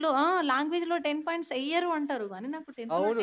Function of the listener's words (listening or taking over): taking over